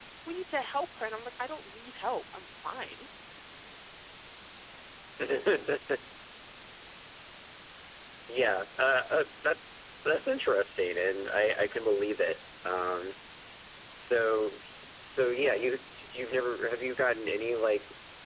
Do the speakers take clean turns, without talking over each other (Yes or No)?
Yes